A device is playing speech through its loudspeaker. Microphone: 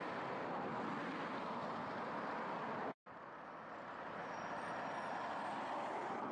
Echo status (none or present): none